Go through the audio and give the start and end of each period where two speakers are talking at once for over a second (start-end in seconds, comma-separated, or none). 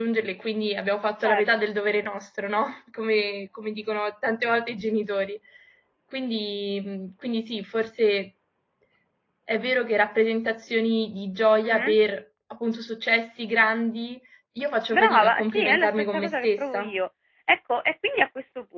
14.9-16.9